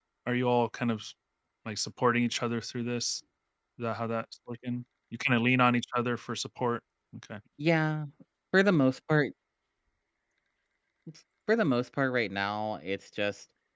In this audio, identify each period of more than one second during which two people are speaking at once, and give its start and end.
none

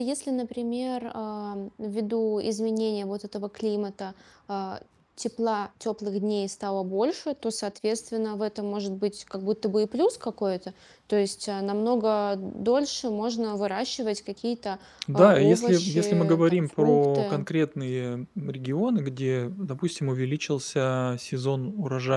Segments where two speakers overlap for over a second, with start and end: 15.1-17.4

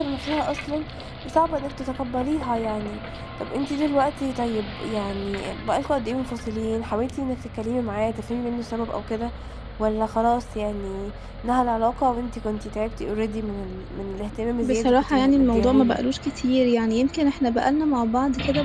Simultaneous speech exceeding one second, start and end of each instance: 14.6-16.0

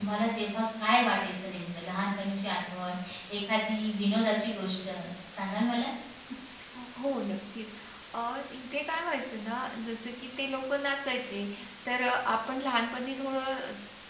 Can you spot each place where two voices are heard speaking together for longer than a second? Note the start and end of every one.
none

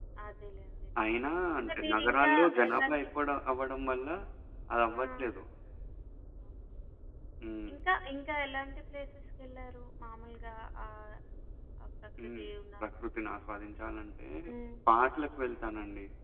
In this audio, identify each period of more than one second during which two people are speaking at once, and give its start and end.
1.6-3.0

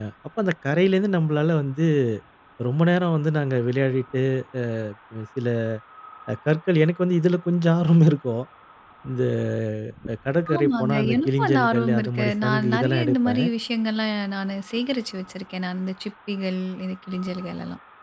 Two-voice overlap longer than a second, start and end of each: 10.6-13.4

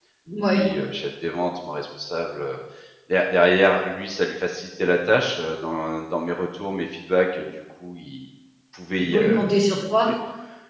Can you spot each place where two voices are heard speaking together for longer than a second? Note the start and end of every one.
none

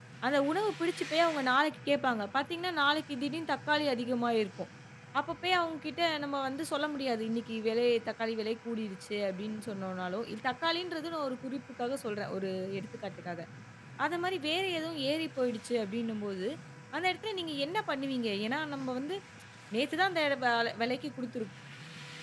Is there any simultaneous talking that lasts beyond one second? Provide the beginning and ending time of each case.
none

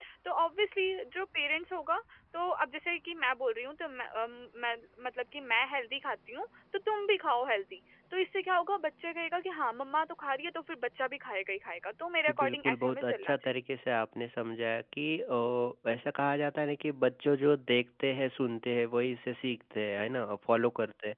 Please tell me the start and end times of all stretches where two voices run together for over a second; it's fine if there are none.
12.3-13.6

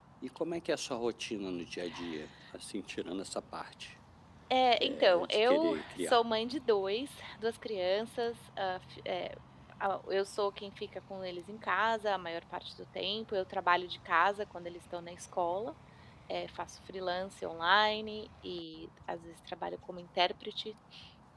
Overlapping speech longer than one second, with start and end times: 4.8-6.2

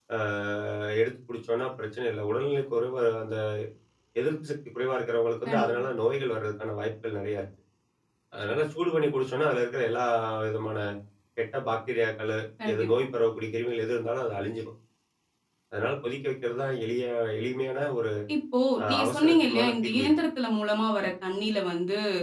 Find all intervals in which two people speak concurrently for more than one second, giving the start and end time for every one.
18.9-20.1

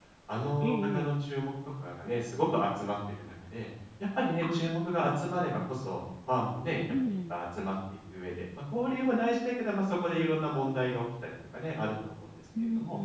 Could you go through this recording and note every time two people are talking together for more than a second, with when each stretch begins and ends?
none

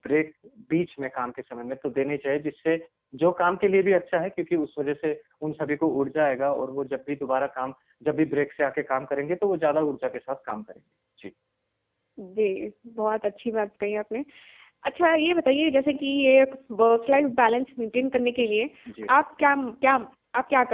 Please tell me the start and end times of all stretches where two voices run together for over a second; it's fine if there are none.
none

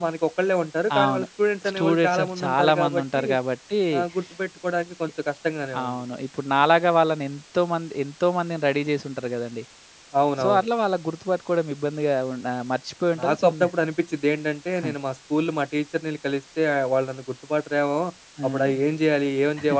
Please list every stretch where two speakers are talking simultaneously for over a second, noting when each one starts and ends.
1.7-3.2

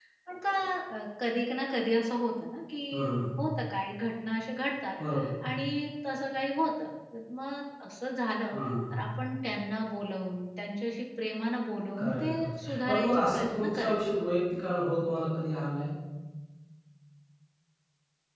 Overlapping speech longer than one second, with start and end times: 12.0-14.0

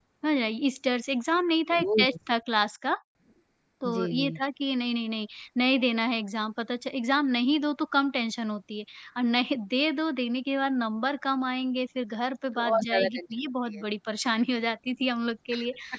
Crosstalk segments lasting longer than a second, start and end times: 12.6-13.8

